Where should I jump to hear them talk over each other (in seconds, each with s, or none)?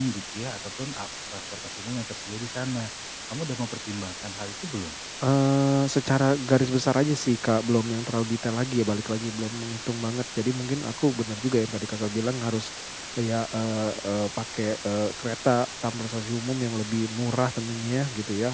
none